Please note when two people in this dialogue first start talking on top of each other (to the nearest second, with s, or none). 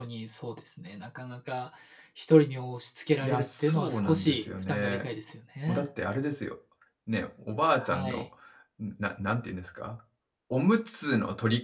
3 s